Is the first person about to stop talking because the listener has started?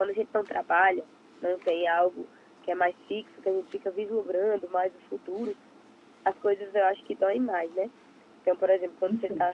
No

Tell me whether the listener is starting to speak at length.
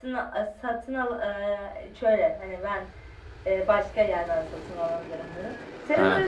No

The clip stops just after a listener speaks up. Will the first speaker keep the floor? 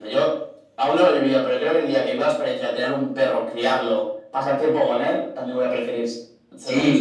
No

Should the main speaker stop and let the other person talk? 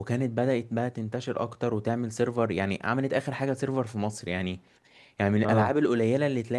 No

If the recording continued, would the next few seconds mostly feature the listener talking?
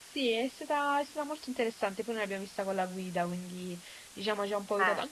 No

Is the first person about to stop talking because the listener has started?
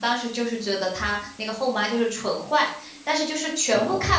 No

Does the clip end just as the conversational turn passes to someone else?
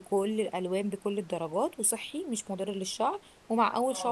No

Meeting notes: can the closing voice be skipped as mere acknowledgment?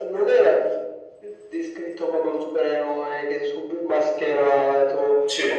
Yes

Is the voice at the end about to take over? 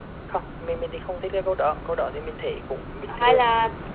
Yes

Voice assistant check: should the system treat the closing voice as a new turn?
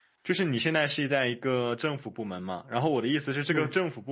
No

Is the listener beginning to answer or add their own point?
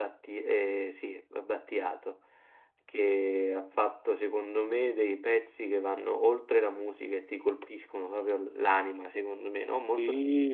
Yes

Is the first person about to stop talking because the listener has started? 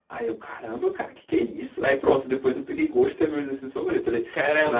Yes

